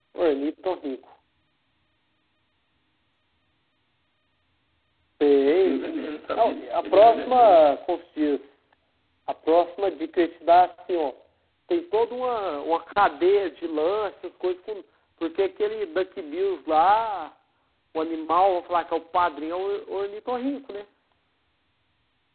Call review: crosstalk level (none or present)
present